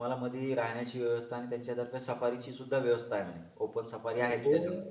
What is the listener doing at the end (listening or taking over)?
taking over